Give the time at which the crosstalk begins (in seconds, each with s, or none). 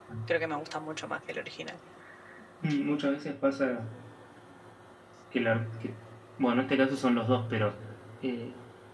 none